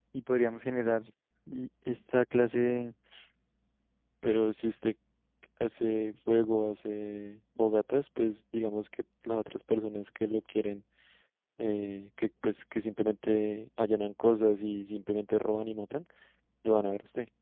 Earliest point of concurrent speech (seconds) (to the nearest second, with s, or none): none